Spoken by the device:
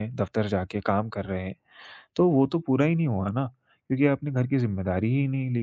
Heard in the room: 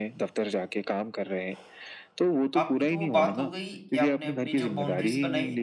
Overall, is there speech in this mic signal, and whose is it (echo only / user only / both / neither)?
both